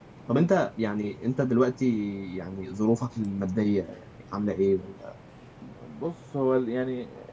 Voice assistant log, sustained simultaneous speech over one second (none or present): none